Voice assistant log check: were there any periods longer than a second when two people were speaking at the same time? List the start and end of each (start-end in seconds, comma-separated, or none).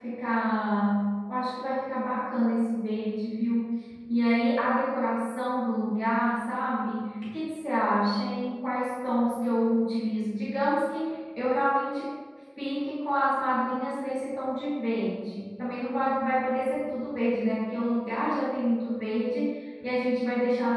none